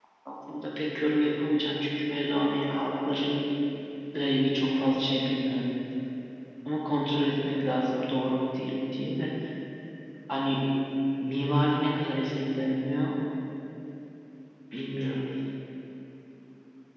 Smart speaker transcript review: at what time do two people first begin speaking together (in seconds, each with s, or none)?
none